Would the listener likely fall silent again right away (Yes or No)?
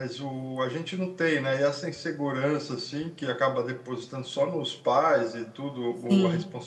Yes